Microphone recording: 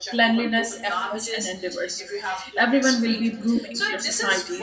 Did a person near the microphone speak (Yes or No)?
Yes